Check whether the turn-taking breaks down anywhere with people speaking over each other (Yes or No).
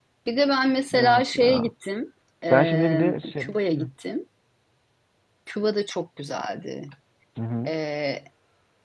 Yes